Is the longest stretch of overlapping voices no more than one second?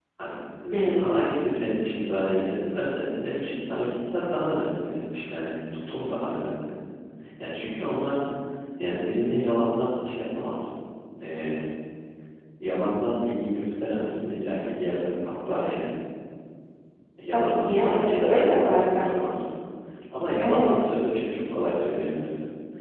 No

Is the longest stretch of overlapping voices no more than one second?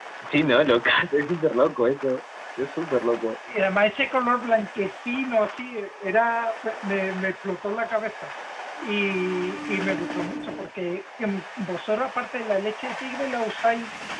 Yes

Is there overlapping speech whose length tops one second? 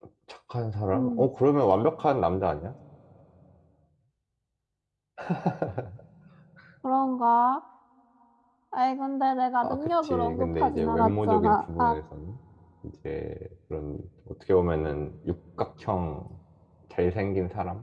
Yes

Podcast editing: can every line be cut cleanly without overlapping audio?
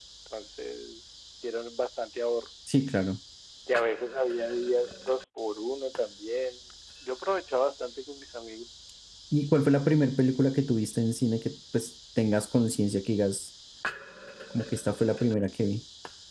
Yes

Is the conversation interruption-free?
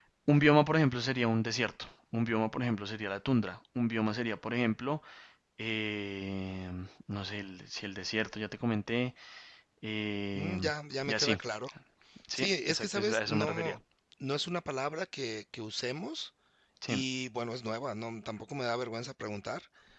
No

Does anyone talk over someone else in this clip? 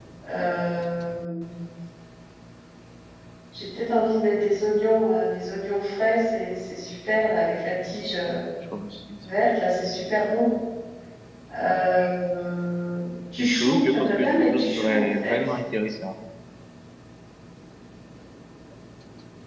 Yes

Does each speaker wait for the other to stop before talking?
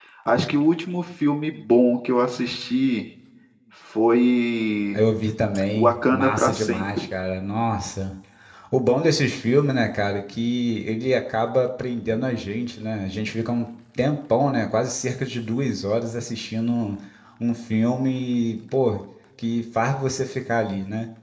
No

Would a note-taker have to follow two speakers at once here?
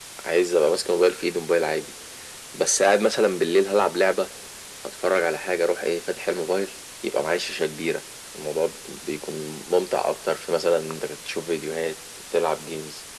No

